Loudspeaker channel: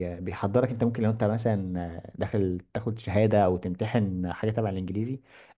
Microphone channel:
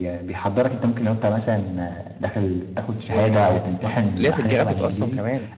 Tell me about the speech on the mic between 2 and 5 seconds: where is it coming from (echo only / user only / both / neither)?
both